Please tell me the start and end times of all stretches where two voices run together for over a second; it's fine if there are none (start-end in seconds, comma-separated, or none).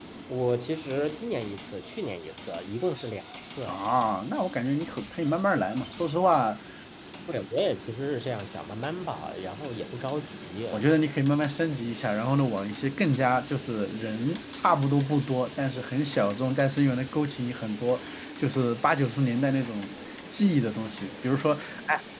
none